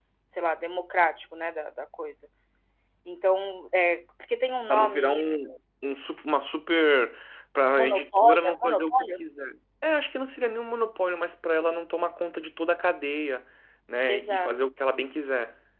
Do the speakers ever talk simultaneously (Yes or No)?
Yes